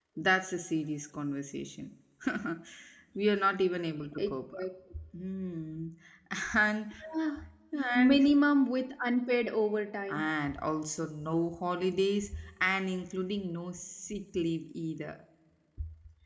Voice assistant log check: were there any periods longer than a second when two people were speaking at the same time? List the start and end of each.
none

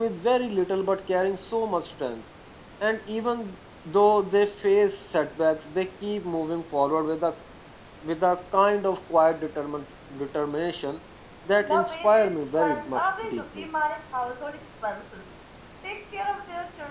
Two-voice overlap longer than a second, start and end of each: 11.6-13.7

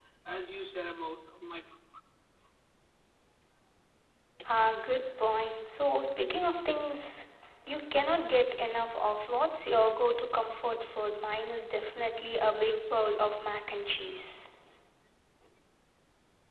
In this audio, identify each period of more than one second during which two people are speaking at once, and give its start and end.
none

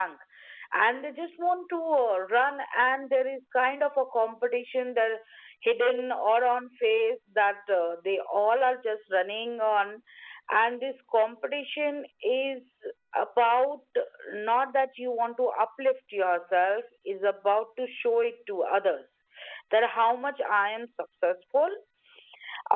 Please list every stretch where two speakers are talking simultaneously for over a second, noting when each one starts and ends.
none

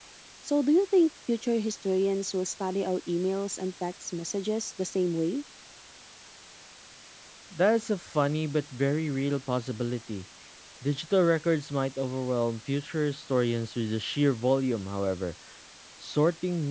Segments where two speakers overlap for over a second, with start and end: none

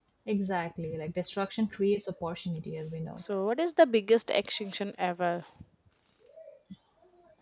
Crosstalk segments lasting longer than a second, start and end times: none

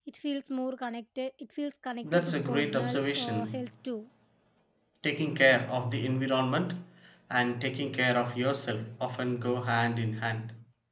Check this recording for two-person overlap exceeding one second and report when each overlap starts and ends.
2.0-3.7

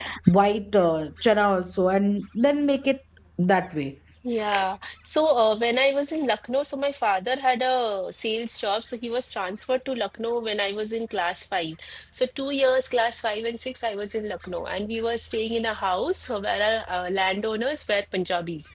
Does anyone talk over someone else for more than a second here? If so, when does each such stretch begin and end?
none

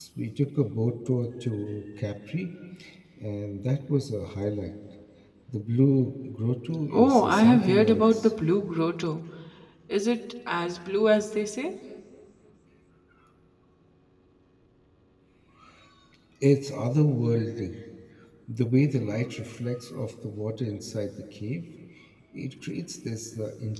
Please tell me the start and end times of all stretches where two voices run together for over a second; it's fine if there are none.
6.9-8.3

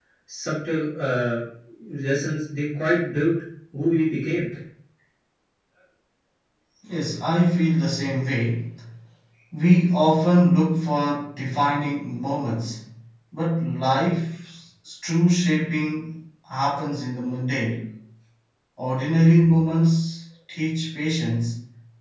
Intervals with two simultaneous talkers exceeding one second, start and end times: none

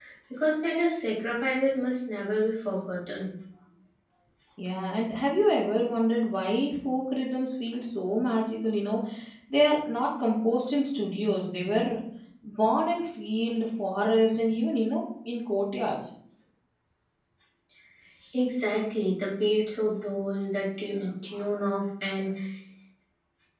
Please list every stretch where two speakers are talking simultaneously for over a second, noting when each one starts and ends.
none

